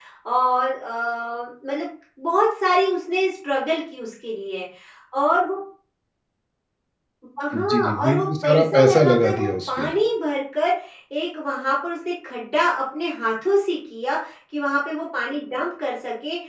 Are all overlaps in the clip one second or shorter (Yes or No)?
No